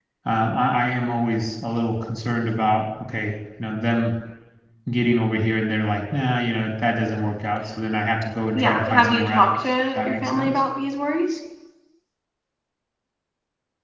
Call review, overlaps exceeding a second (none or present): present